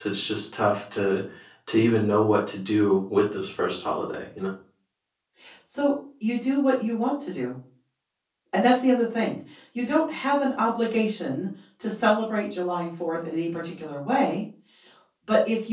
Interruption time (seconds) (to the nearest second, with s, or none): none